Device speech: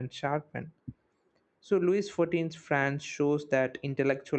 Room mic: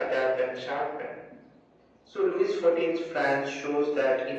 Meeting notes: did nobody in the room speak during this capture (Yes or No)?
Yes